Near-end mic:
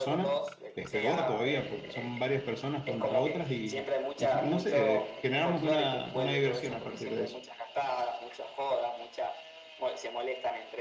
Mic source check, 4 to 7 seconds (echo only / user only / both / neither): both